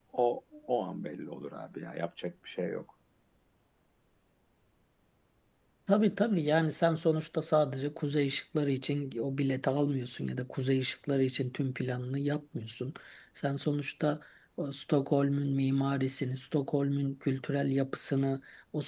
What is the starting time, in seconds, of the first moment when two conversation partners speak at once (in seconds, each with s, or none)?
none